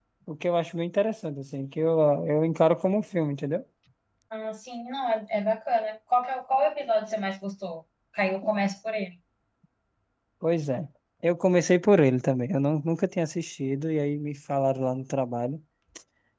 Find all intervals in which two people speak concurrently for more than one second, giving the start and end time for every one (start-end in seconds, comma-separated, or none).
none